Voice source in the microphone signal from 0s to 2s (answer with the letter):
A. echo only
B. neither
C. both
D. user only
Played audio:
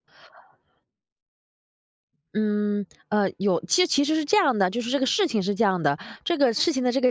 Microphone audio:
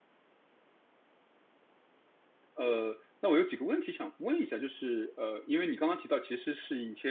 B